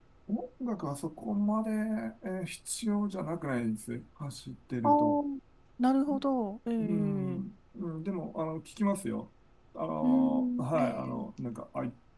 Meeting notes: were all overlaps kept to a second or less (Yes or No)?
No